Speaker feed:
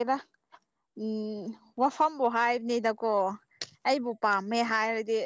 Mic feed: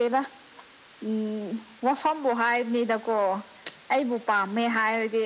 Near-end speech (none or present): none